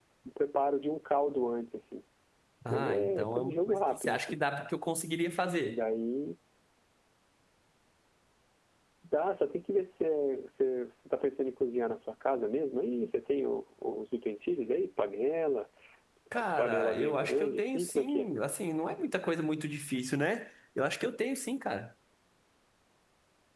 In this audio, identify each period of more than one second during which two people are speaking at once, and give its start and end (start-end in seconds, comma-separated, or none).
2.7-4.4, 16.4-18.3